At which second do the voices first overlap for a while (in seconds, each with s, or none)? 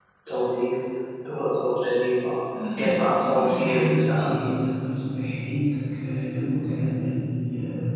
2.8 s